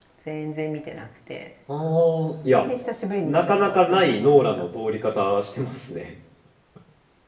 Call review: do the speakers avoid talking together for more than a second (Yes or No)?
No